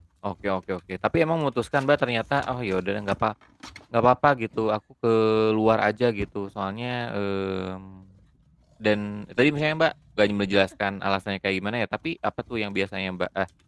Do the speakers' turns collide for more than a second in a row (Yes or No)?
No